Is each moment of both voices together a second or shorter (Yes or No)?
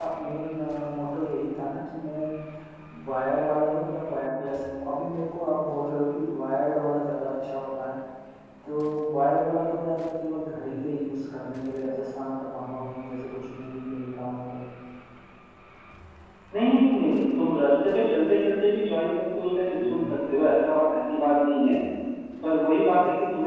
Yes